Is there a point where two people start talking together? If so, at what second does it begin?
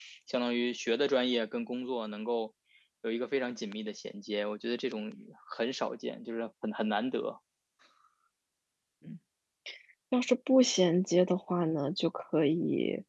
none

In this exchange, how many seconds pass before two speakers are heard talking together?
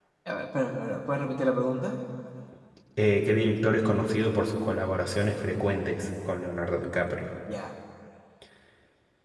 none

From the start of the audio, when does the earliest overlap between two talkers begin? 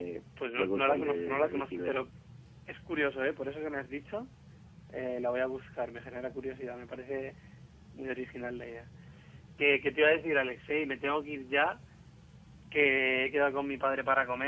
0.6 s

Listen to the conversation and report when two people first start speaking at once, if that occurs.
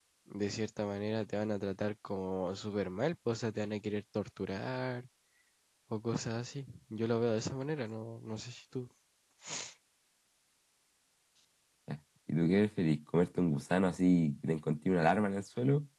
none

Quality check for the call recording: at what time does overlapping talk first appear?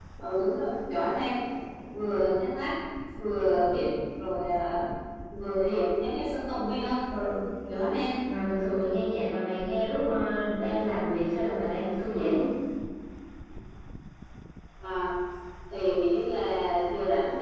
none

